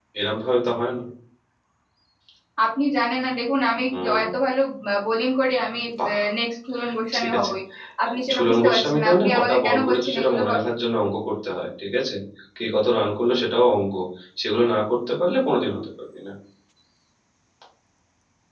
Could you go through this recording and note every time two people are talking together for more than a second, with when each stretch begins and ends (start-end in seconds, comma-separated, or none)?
8.3-10.6